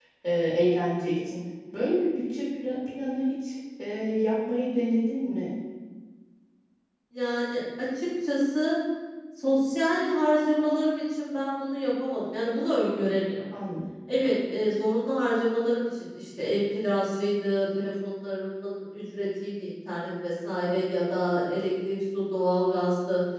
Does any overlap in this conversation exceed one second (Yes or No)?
No